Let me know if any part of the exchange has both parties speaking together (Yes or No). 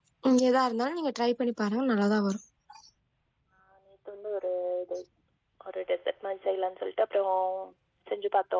No